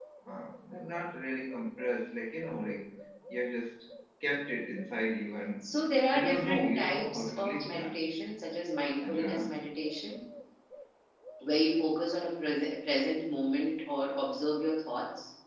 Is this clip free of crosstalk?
No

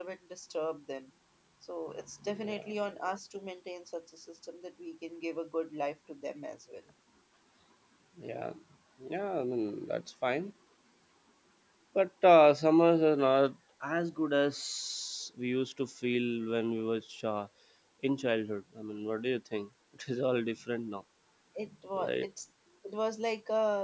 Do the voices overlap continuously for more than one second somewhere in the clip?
No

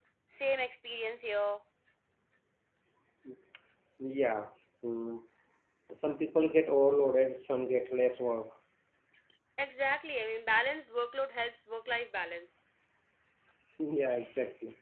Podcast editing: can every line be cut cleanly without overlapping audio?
Yes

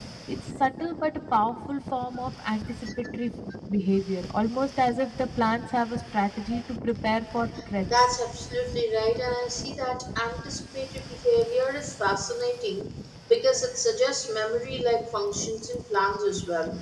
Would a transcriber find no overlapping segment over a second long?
Yes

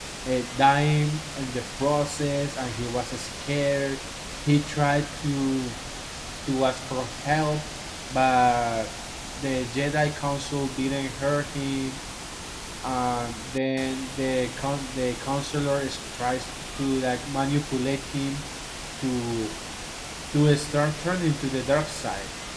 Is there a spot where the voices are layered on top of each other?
No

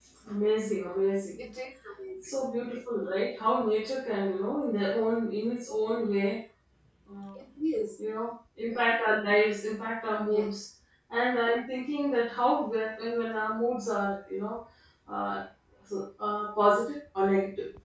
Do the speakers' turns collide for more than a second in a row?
No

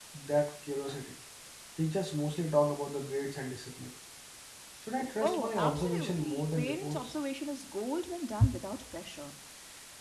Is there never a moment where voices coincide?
No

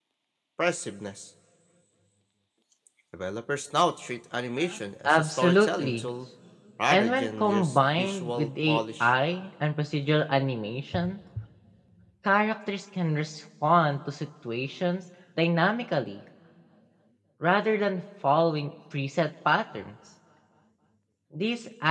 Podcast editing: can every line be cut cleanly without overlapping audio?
No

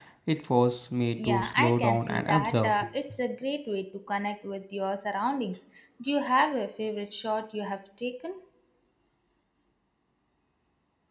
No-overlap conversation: No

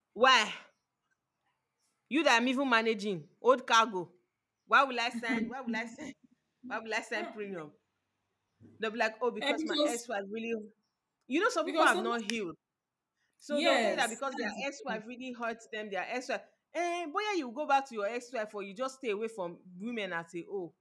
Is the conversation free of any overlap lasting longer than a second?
No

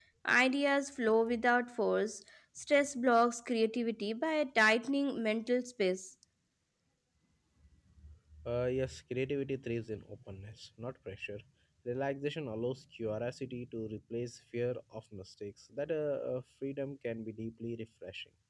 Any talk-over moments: No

